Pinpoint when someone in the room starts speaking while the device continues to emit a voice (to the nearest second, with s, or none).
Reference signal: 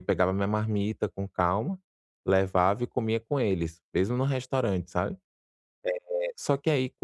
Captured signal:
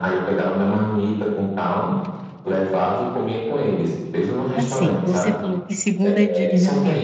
5 s